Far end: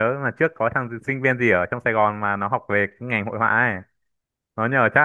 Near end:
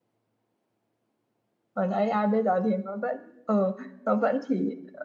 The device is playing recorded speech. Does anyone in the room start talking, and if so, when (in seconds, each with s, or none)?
1.7 s